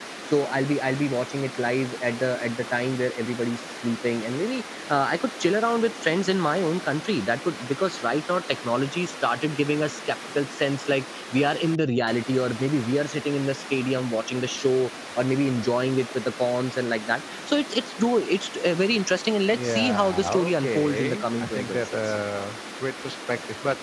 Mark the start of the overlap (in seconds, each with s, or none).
19.5 s